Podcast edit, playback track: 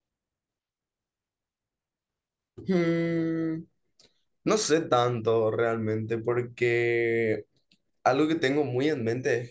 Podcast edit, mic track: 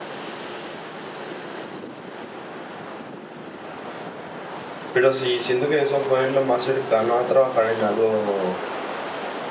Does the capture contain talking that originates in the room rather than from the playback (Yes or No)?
Yes